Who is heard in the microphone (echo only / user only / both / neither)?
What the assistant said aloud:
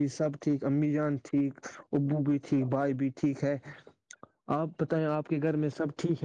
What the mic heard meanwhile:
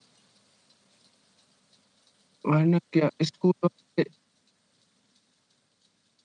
user only